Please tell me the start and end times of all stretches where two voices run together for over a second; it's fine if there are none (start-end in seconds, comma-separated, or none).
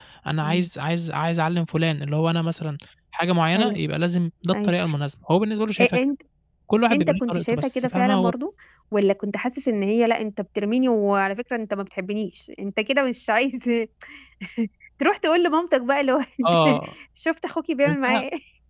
6.9-8.3